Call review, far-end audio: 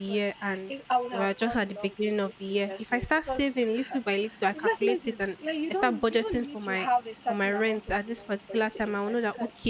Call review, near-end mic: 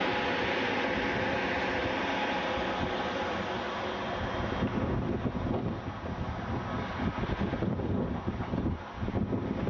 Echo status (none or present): none